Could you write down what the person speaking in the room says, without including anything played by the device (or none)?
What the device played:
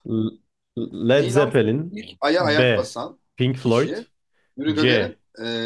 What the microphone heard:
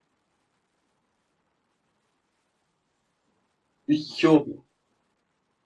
Üç iki oldu.